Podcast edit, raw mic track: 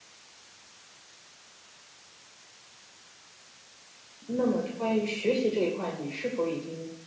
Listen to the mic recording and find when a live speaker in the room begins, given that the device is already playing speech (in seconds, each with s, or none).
4.2 s